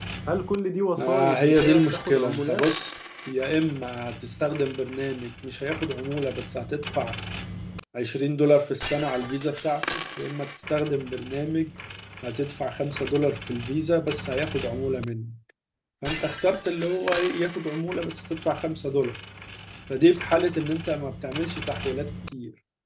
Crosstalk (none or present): present